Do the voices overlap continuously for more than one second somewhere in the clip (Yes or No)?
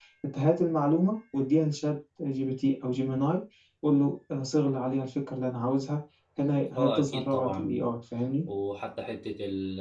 Yes